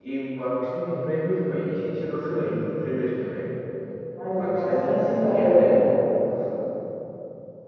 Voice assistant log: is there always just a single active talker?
No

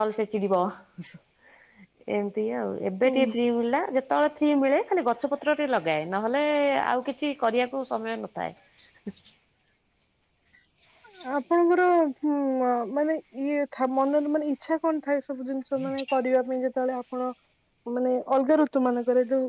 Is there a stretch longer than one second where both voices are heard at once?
No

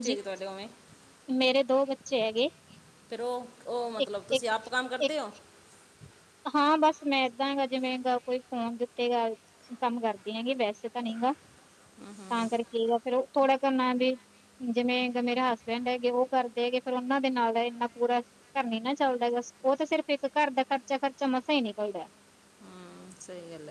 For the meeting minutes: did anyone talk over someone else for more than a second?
No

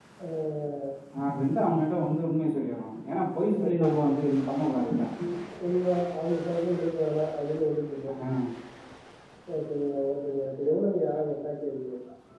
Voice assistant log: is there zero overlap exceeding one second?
Yes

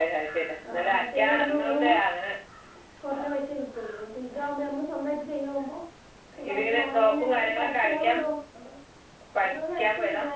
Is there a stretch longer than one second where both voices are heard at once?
Yes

